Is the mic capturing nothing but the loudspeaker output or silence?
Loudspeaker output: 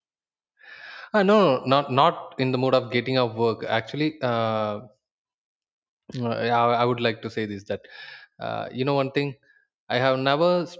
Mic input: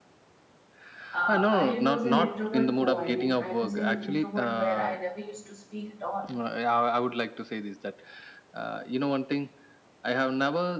No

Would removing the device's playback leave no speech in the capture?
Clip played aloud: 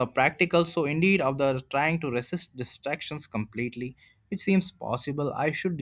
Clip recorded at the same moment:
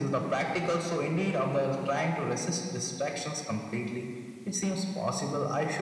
Yes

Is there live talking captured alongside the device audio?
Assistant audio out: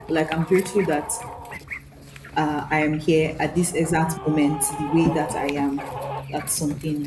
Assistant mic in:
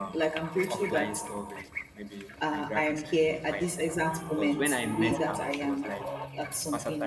Yes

